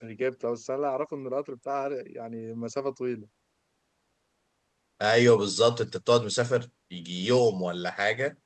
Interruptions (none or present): none